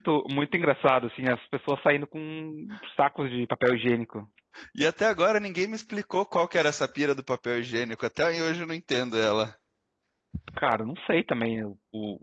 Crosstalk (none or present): none